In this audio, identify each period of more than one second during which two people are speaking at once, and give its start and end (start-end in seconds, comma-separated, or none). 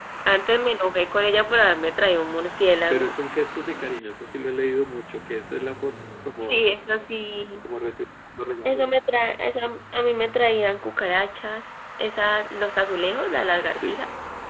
none